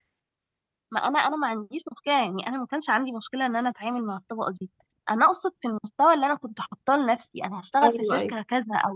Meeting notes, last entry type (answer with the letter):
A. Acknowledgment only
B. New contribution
A